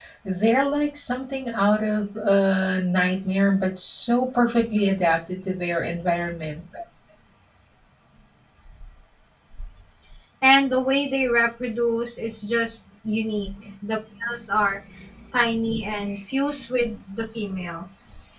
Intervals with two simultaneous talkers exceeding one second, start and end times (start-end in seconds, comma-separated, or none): none